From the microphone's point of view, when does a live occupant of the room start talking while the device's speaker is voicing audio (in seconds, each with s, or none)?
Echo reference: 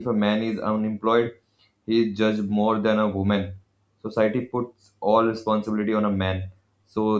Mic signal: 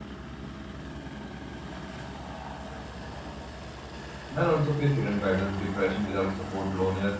4.3 s